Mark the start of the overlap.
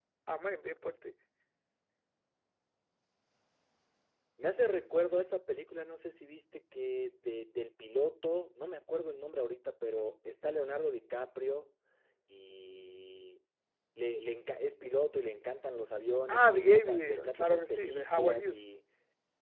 16.3 s

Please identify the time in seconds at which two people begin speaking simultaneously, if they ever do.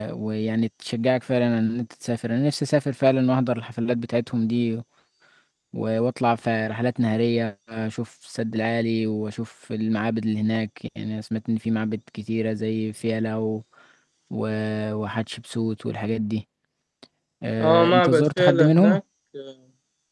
17.6 s

